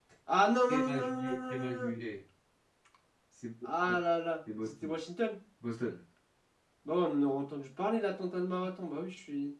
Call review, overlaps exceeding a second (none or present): present